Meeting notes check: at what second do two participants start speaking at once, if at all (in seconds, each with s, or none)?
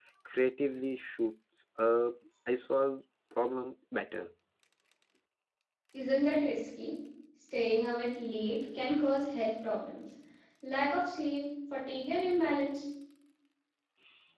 none